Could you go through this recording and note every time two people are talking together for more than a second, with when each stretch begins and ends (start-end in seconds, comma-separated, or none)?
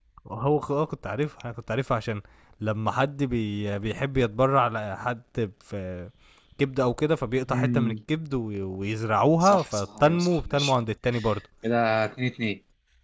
9.4-10.8